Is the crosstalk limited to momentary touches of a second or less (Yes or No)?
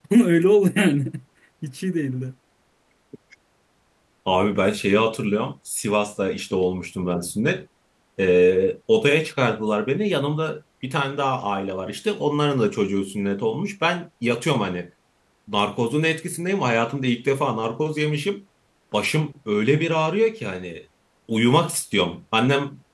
Yes